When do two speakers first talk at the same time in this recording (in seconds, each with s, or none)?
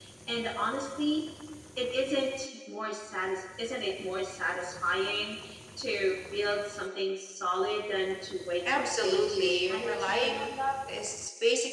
8.7 s